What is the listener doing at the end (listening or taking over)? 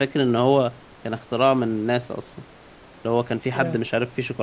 listening